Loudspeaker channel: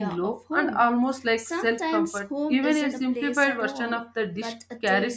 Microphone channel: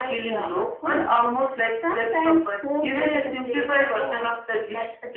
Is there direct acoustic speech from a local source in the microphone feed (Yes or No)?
No